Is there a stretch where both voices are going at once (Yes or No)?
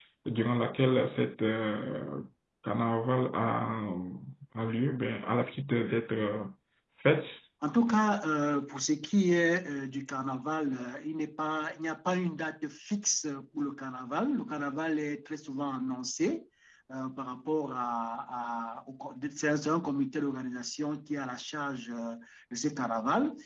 No